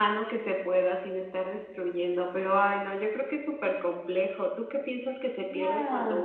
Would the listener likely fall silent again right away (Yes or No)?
Yes